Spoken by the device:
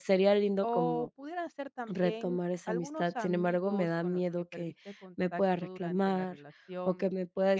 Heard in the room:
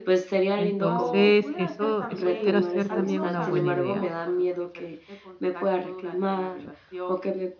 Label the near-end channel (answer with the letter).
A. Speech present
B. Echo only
A